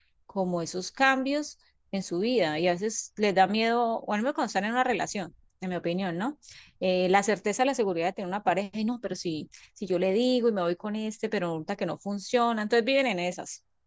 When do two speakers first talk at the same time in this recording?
none

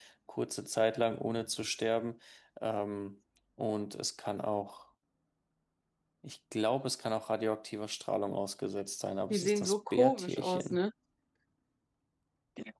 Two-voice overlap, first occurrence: 9.3 s

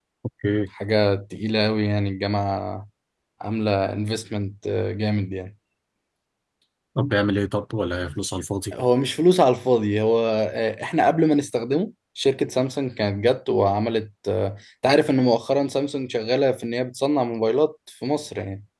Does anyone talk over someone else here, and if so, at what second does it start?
none

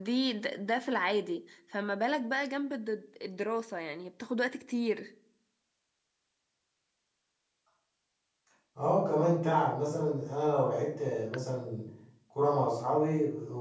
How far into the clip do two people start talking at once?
none

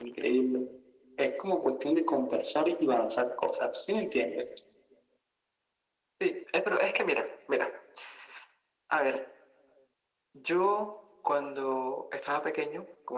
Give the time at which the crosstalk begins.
none

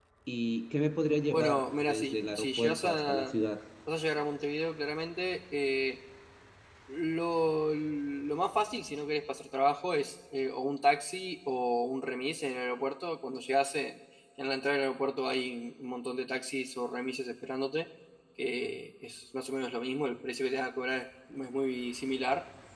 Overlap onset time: 1.3 s

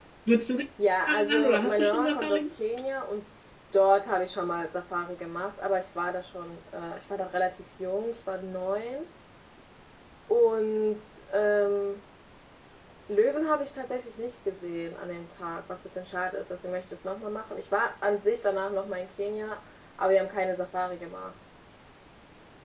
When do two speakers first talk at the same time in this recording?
1.1 s

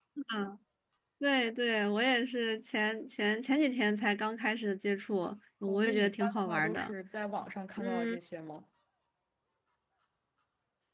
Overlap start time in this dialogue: 5.7 s

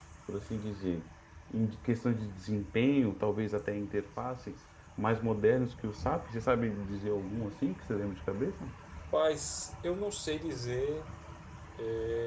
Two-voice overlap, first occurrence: none

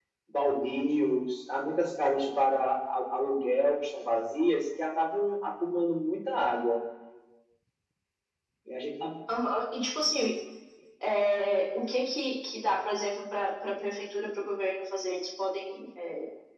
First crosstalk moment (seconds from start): none

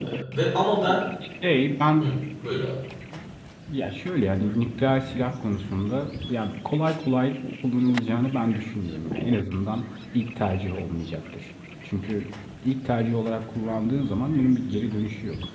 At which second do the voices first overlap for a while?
none

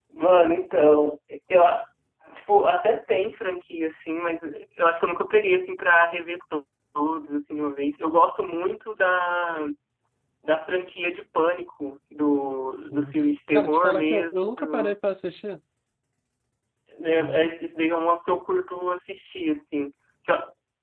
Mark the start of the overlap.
12.9 s

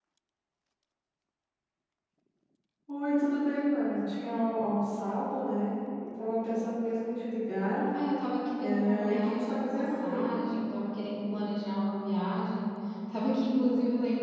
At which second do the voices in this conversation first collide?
8.6 s

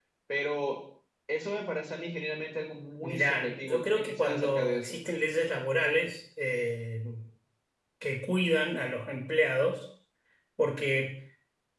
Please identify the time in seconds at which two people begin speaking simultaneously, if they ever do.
3.0 s

